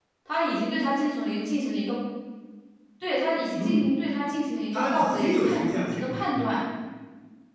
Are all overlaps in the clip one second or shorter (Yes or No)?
No